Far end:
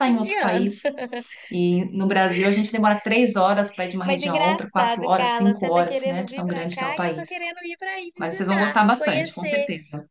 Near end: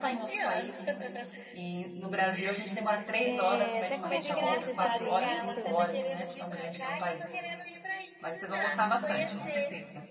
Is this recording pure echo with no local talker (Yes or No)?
No